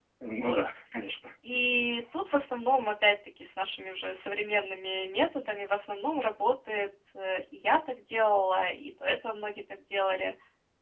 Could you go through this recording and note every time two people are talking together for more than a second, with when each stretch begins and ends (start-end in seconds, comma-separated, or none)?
none